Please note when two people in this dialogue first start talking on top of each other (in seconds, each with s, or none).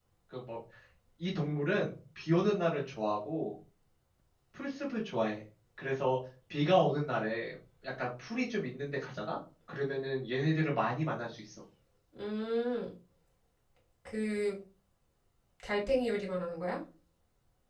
none